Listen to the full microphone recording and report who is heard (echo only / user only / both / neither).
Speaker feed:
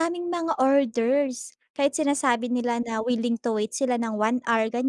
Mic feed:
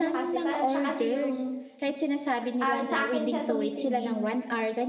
both